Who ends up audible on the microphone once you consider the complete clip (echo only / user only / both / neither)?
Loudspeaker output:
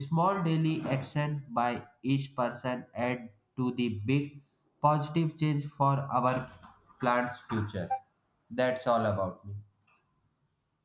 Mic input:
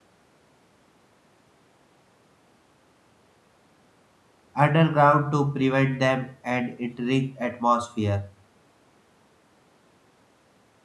user only